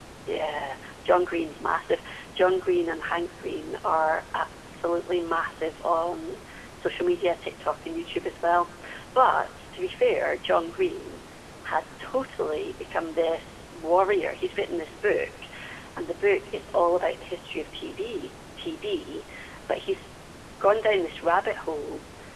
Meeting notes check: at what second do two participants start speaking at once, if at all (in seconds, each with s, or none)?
none